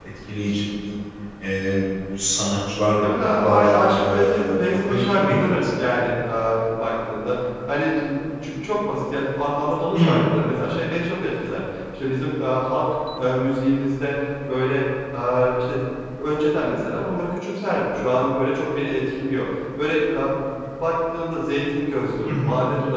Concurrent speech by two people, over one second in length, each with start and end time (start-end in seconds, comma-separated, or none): 3.0-5.7